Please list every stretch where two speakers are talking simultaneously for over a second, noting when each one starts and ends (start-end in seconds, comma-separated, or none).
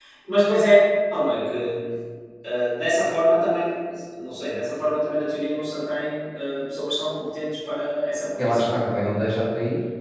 none